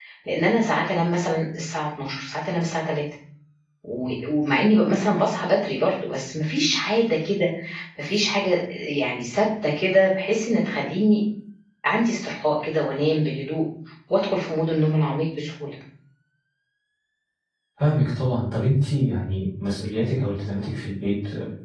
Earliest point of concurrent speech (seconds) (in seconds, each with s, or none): none